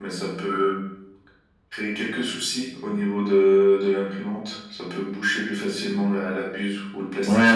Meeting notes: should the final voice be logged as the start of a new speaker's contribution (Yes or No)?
Yes